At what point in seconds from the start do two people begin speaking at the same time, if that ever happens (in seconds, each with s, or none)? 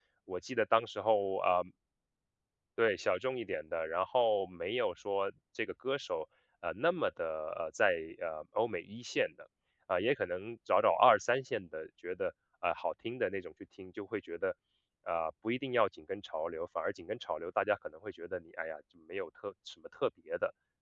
none